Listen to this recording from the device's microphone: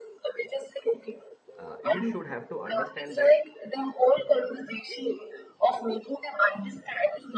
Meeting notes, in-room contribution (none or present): present